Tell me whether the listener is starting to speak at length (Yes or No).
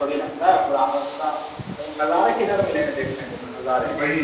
Yes